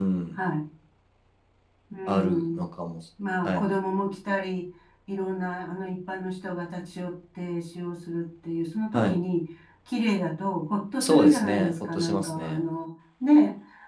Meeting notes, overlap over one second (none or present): present